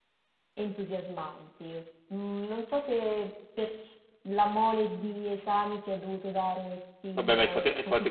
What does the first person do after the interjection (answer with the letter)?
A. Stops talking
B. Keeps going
A